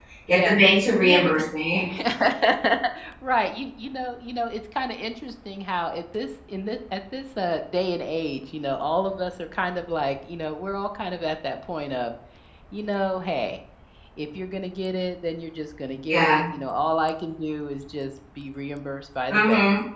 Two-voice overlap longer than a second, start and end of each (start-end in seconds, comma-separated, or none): none